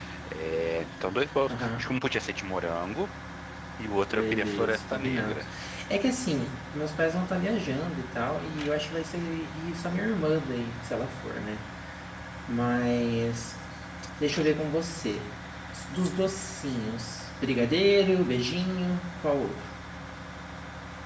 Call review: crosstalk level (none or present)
present